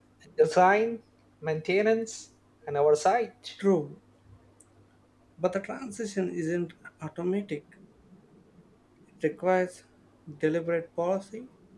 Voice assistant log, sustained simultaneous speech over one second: none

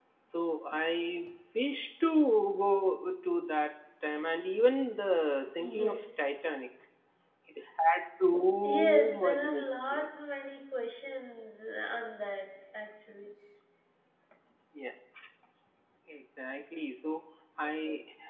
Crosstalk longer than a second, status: present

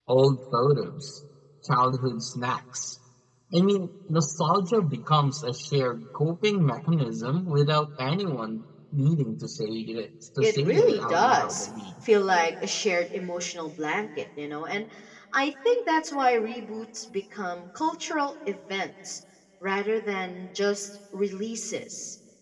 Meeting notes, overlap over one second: present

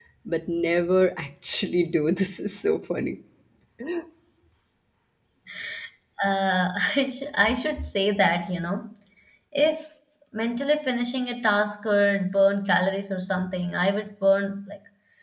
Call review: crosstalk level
none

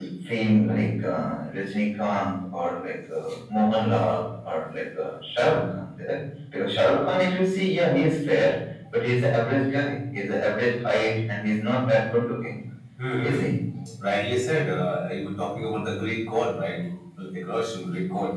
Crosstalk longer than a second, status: none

